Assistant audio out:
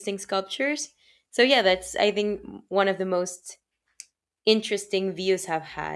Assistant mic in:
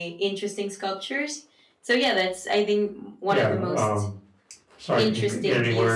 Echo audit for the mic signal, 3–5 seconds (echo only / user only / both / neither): both